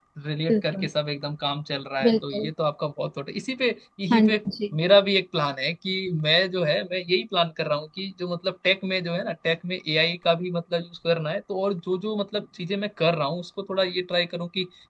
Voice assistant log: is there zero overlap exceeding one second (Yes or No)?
Yes